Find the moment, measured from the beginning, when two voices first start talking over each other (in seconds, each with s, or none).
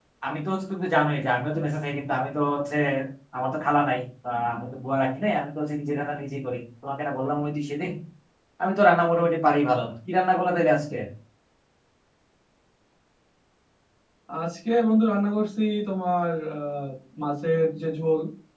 none